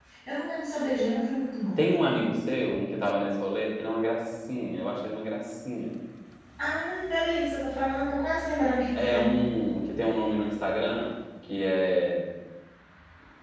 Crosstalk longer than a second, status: none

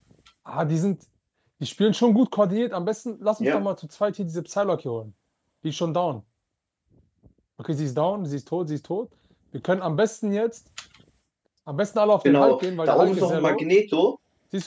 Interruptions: present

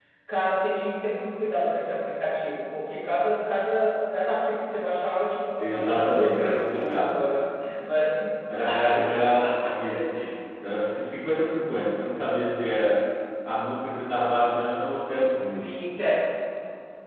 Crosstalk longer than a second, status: present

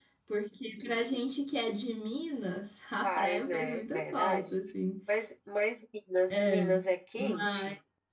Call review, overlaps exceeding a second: present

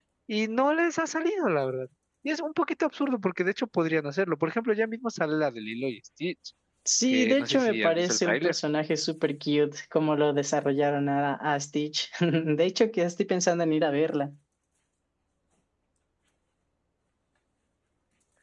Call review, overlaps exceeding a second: present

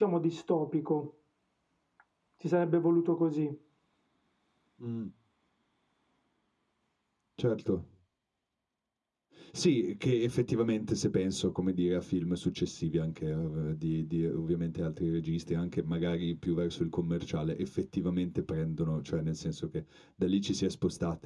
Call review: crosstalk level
none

